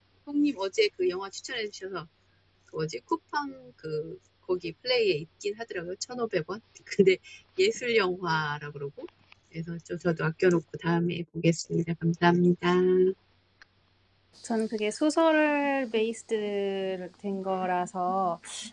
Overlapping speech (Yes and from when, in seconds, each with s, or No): No